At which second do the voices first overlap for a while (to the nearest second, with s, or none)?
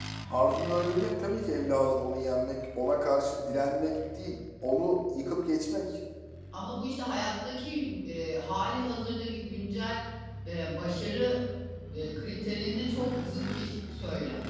none